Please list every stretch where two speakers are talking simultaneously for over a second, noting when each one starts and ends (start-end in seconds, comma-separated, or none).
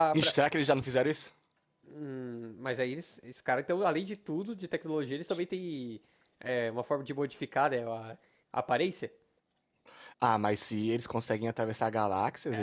none